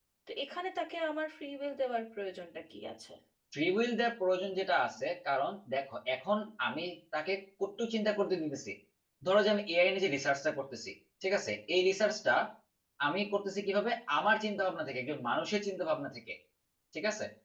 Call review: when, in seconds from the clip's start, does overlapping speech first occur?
none

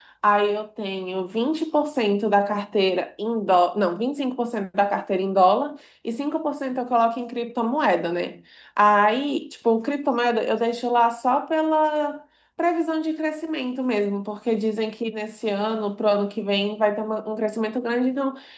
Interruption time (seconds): none

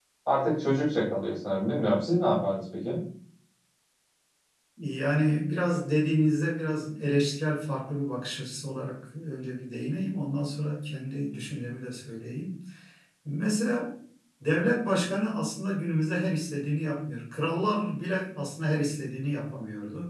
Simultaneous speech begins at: none

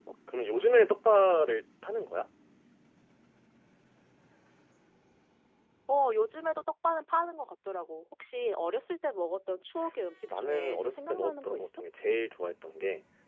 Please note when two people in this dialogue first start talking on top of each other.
10.3 s

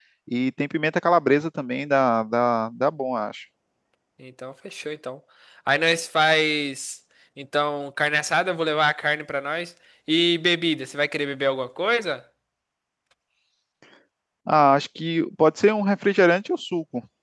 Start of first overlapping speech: none

